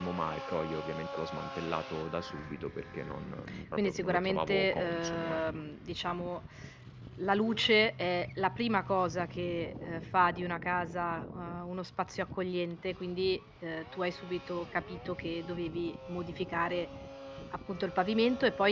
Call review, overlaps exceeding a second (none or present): present